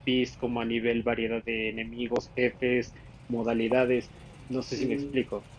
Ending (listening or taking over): taking over